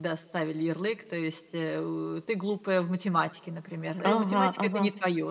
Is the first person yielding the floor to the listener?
No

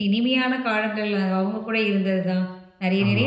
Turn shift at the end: No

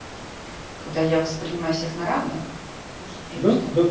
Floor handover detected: Yes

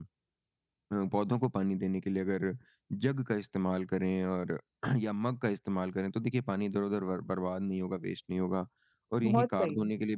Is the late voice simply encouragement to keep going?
Yes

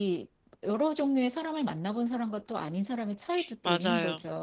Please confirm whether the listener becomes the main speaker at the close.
Yes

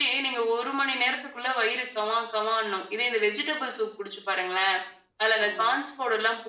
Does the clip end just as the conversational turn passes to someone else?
No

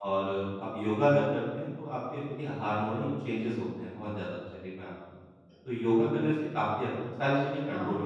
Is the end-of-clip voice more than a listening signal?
Yes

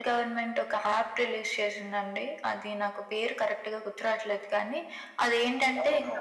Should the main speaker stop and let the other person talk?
No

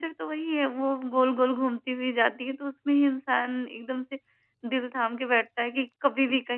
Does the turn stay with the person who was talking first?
Yes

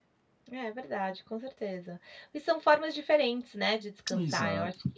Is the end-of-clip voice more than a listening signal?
No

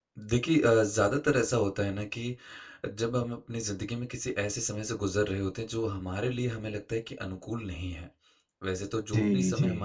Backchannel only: Yes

